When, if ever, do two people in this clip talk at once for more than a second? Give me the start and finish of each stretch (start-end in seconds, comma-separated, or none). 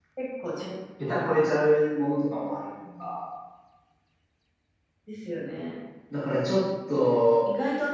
none